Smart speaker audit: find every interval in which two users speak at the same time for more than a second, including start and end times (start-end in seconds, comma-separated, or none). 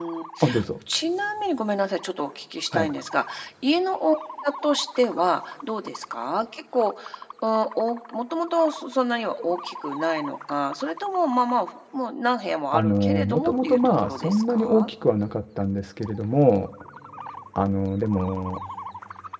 12.7-14.9